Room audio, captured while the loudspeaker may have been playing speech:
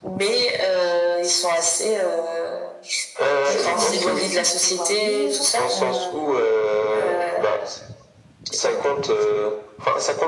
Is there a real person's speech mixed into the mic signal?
Yes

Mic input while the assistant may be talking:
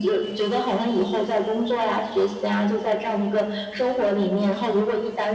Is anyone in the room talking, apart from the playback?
No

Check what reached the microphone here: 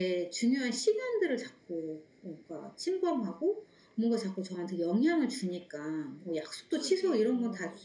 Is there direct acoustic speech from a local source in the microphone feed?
Yes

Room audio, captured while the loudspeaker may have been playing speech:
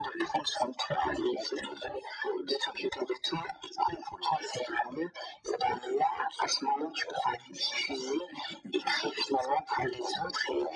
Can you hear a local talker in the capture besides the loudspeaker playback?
No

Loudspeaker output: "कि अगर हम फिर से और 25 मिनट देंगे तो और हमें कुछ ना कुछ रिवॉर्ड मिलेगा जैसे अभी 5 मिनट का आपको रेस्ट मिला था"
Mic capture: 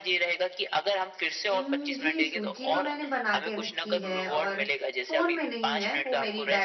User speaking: Yes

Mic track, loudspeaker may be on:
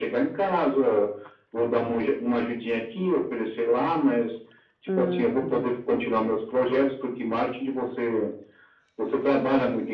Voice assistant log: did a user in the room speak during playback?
Yes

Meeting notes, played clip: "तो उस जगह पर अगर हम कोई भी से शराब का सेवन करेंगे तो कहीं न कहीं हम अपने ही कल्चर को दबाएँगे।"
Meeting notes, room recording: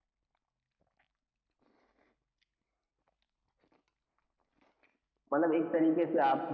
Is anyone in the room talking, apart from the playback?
Yes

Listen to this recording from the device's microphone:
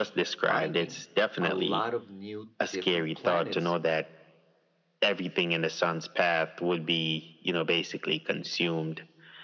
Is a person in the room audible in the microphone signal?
Yes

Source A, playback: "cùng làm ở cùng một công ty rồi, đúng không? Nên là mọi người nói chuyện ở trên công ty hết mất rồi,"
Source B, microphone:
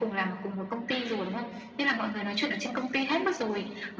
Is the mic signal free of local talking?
Yes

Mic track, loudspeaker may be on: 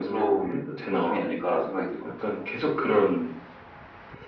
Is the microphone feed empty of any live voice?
Yes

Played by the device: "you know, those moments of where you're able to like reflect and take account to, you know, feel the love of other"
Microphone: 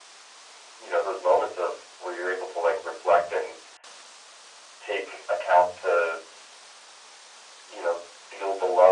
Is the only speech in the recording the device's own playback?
Yes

